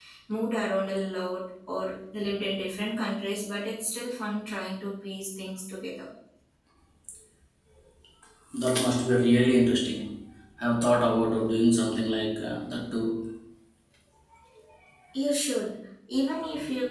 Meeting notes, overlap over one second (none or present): none